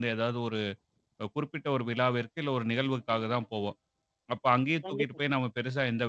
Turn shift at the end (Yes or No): No